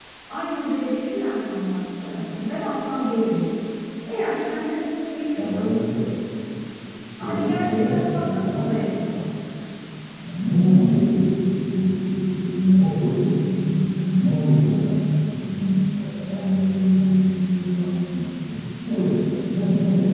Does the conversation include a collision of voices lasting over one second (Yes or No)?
Yes